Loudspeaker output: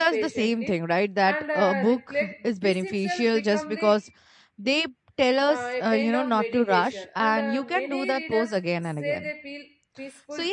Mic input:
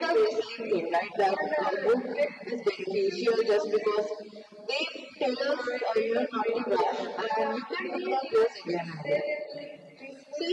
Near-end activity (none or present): none